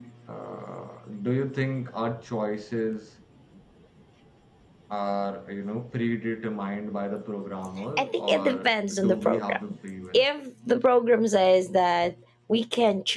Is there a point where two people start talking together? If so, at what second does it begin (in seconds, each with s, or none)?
8.0 s